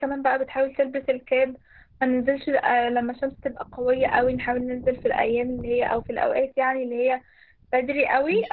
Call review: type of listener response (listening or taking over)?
listening